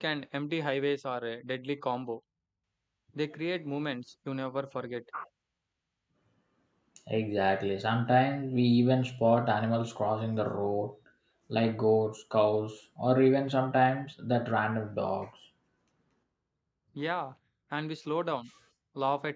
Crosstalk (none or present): none